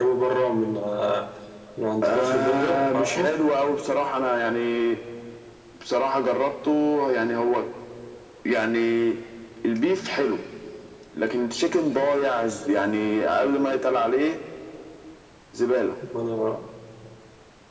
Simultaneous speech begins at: 2.0 s

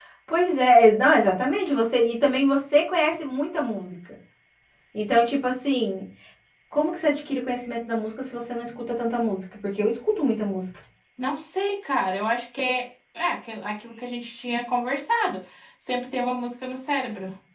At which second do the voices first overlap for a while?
none

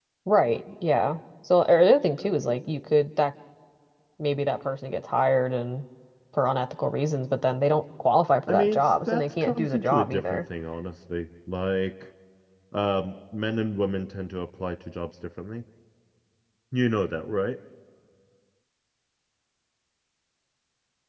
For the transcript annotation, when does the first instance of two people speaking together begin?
8.5 s

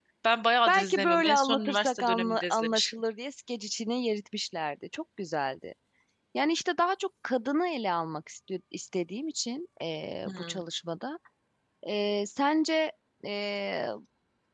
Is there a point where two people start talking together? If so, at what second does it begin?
0.7 s

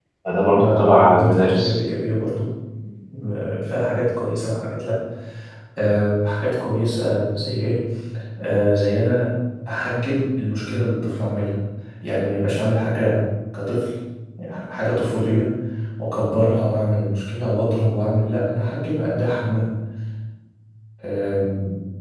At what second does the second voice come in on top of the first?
0.6 s

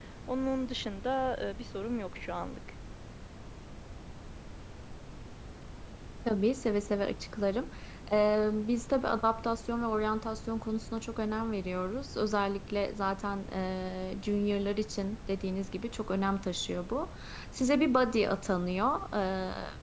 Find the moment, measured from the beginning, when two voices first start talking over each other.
none

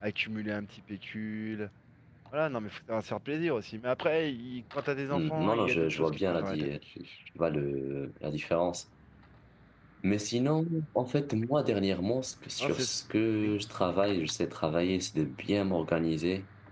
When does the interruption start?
5.1 s

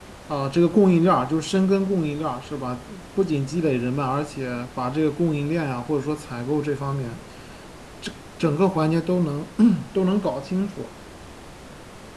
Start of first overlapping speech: none

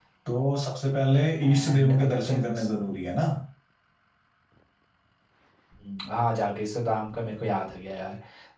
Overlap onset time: 1.4 s

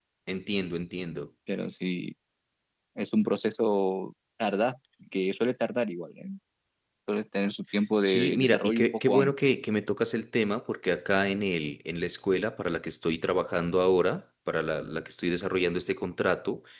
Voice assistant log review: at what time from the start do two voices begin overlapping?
8.0 s

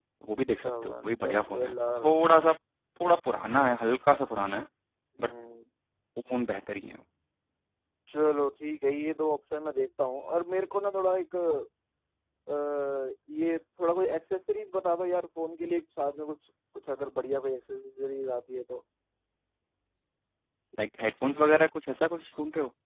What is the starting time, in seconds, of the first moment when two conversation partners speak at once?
0.6 s

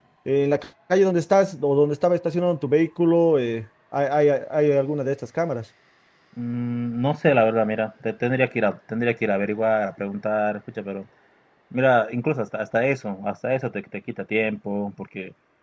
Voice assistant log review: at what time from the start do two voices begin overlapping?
none

